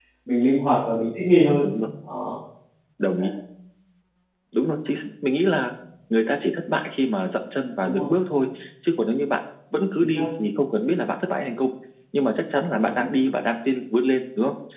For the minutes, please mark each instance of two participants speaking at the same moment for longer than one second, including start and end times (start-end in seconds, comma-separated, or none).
none